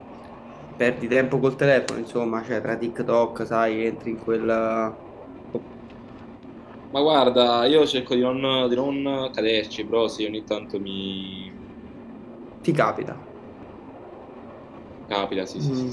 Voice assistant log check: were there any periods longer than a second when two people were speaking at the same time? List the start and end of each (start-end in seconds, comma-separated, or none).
none